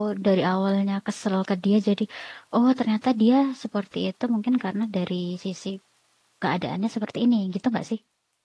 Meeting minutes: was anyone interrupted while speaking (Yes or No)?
No